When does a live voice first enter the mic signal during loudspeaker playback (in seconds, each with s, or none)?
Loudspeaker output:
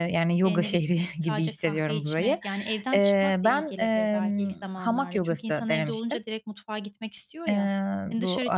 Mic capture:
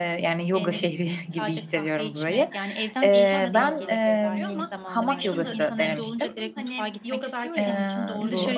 3.1 s